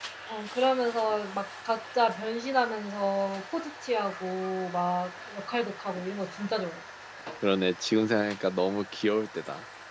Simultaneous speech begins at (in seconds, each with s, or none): none